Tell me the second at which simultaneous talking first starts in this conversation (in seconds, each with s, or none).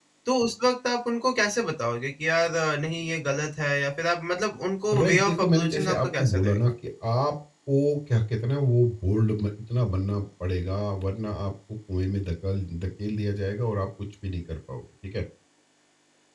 4.9 s